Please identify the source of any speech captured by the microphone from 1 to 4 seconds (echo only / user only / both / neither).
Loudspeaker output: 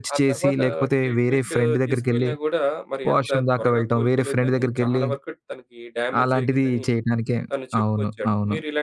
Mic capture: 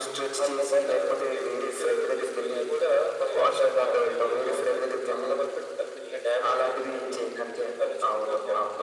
both